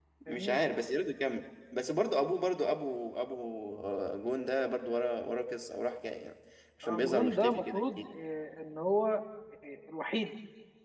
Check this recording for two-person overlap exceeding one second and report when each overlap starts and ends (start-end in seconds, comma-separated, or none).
6.8-8.0